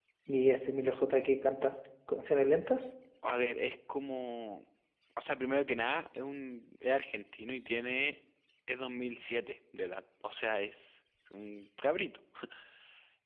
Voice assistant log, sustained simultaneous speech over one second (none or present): none